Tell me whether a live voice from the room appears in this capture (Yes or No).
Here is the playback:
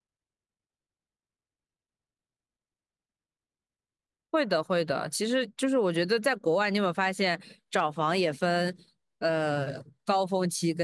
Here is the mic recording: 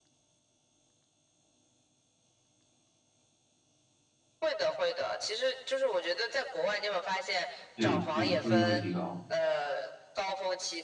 Yes